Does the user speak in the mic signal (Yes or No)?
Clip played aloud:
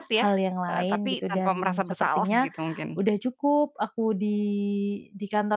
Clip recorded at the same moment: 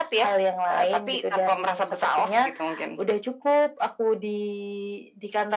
No